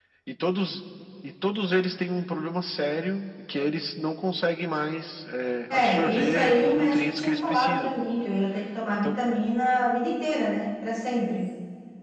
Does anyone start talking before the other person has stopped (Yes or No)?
Yes